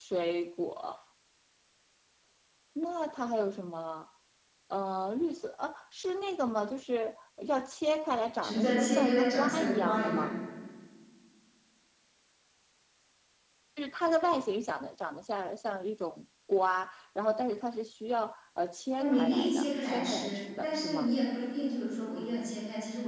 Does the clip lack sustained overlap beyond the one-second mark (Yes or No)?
No